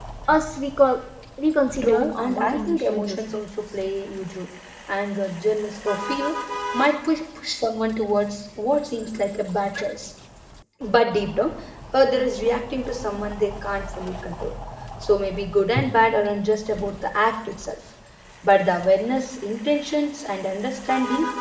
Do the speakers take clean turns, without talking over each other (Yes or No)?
No